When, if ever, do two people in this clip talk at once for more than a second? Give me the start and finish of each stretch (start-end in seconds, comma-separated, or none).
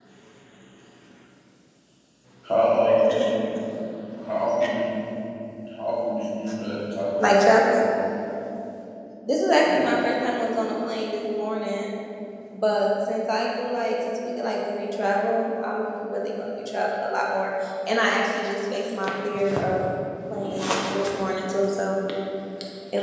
none